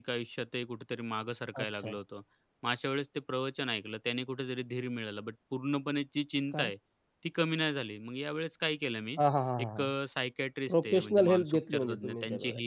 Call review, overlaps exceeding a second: present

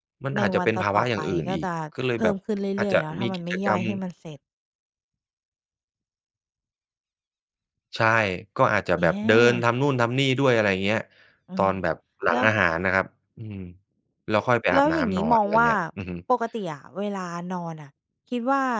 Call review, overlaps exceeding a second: present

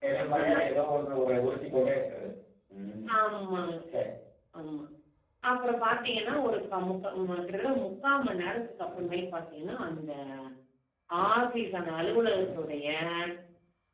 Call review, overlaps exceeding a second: none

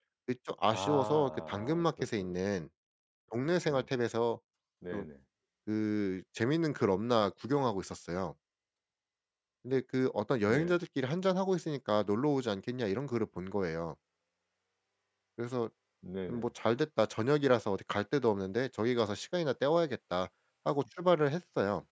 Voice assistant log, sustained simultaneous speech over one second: present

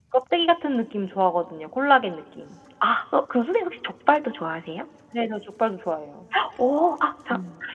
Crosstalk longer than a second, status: none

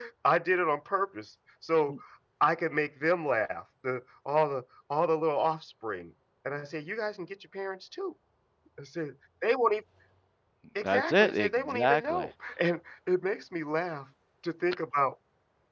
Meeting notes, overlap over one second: present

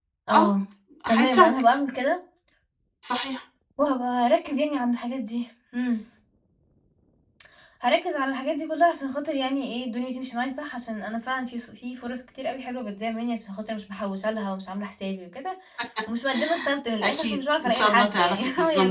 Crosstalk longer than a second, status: present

